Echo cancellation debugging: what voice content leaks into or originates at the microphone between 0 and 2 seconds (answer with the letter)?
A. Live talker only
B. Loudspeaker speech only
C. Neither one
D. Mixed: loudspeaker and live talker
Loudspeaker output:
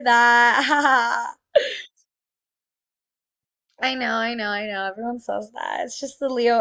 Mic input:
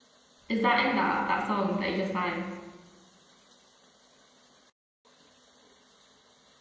A